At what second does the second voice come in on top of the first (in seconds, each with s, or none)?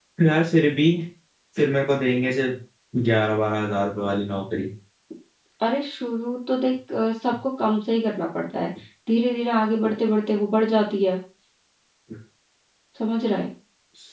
none